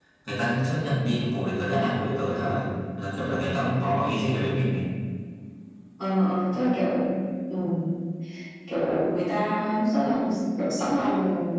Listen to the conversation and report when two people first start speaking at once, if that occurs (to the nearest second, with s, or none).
none